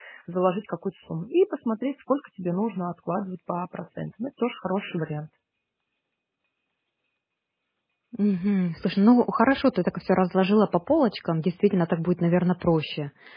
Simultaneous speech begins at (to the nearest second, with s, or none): none